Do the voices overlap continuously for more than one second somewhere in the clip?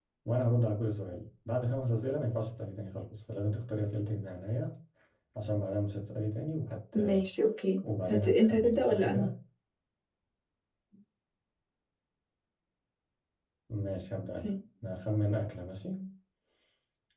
Yes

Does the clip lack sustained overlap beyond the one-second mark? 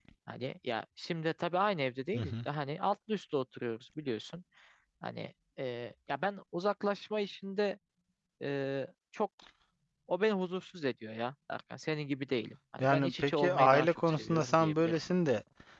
No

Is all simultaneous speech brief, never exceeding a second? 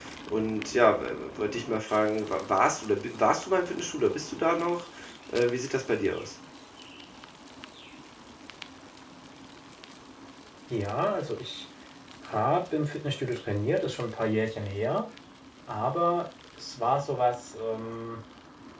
Yes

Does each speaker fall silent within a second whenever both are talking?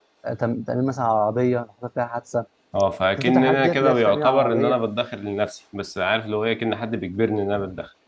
No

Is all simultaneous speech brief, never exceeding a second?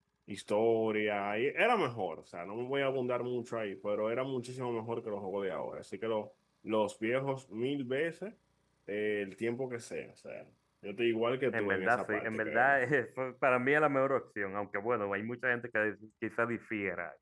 No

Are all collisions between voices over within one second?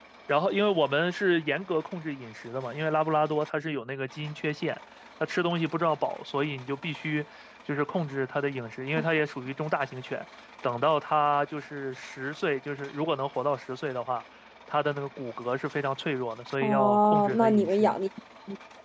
No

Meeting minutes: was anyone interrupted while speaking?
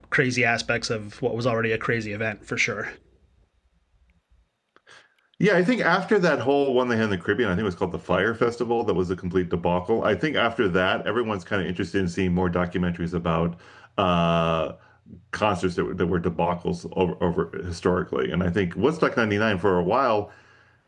No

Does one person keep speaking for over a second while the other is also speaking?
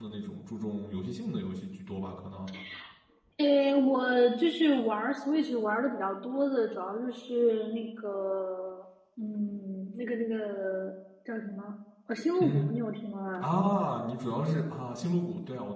No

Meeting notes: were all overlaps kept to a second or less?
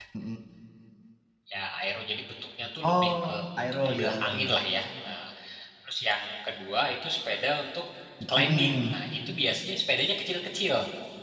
No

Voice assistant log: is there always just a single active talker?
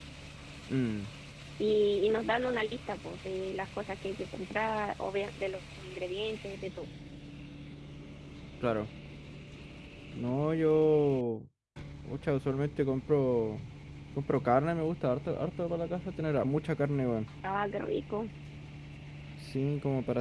Yes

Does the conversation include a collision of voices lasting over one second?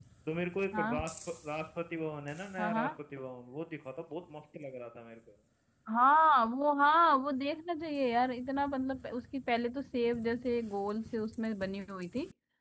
No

